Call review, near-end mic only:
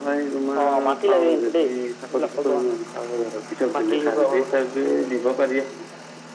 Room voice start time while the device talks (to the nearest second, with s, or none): none